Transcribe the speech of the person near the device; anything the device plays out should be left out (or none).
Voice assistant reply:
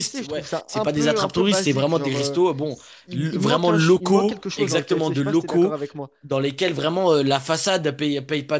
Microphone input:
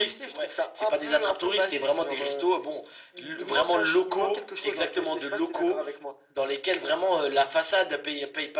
none